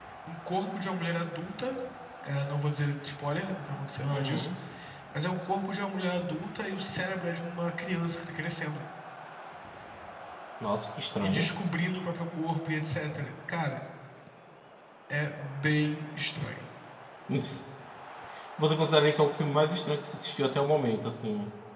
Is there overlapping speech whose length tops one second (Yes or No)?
No